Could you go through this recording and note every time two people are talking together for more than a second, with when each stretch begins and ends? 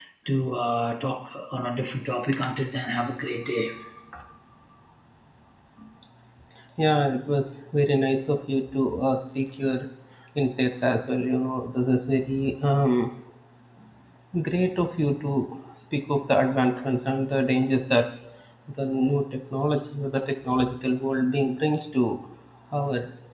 none

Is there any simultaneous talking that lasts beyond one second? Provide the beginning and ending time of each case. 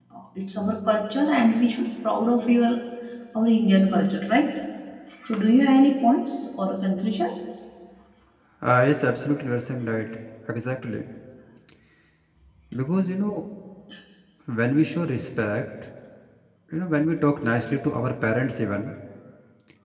none

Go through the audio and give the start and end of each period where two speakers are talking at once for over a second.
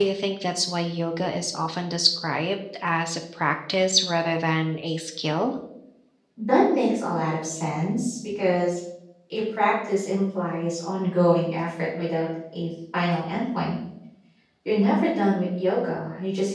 none

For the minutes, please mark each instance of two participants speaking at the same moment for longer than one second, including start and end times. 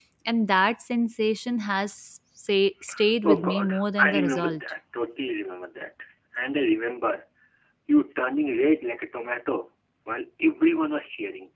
3.2-4.6

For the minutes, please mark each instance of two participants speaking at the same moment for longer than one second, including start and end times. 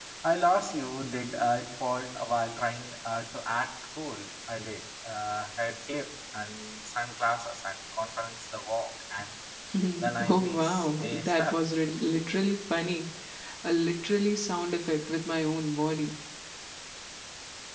10.3-11.6

